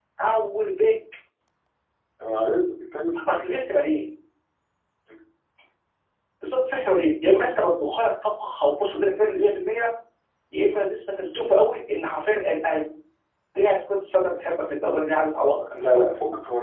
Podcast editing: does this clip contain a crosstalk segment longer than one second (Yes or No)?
No